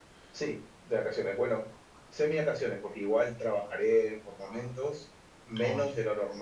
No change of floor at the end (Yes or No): Yes